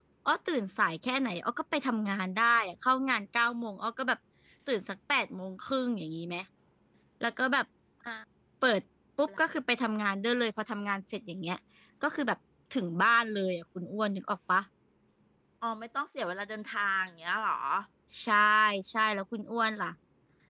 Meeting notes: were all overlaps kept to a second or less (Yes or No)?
Yes